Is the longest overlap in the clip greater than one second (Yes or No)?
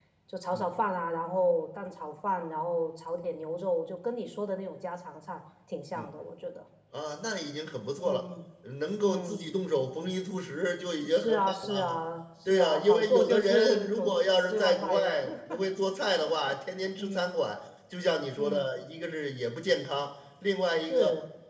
Yes